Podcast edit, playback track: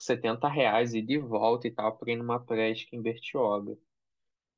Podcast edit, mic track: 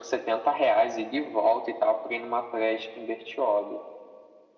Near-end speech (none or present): none